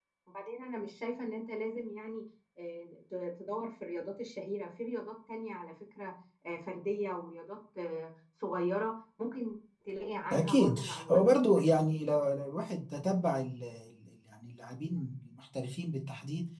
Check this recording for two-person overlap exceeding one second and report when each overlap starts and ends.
10.3-11.9

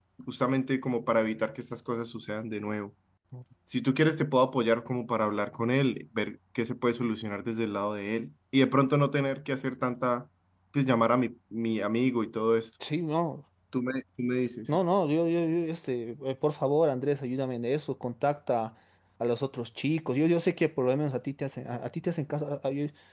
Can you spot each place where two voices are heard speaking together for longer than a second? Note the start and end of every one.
none

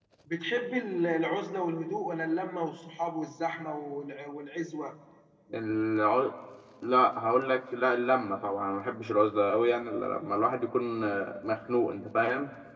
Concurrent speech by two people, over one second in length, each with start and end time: none

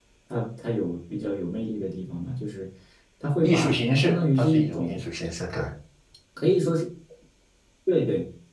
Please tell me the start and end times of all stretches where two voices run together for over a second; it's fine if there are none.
3.4-5.0

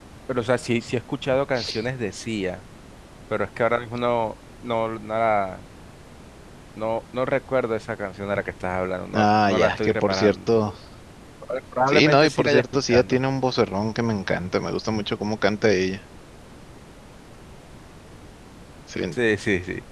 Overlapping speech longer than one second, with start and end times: 9.1-10.5, 11.9-13.2

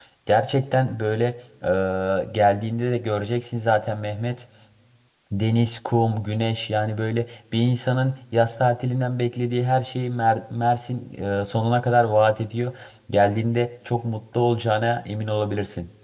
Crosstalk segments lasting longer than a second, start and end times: none

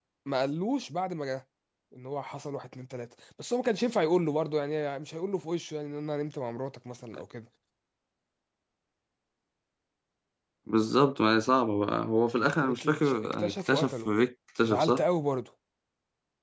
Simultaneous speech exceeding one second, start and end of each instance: 12.6-14.1

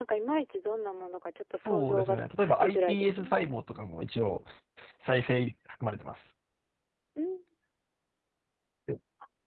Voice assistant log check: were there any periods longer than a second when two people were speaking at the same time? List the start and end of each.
1.6-3.3

